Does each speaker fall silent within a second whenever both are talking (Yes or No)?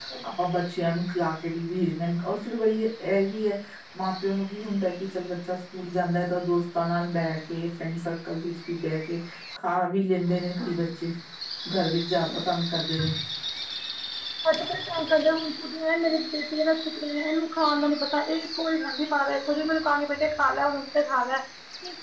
Yes